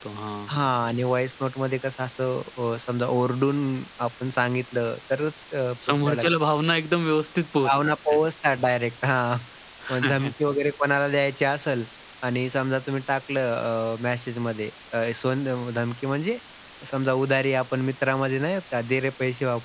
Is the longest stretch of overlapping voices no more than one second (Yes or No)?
Yes